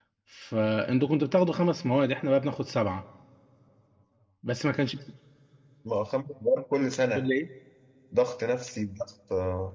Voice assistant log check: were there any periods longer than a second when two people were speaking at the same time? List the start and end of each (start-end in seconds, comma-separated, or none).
none